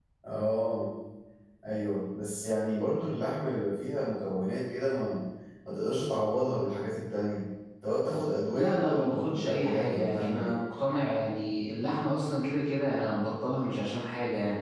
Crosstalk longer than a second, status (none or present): present